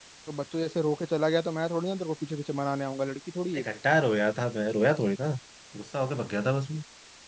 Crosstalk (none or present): none